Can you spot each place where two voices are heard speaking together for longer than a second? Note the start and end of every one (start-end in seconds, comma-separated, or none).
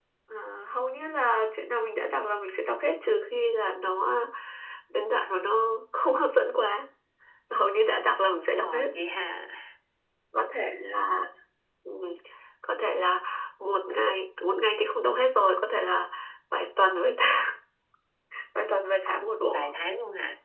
none